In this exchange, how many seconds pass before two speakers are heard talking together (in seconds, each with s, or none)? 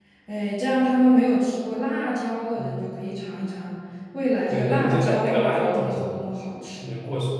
4.5 s